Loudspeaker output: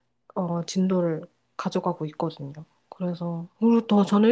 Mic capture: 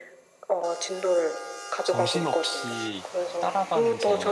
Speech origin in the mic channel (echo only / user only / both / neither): both